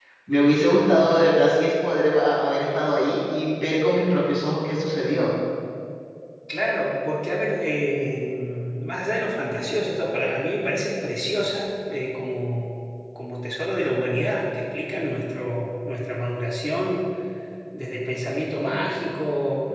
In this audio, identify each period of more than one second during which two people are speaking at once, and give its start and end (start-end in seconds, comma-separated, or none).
none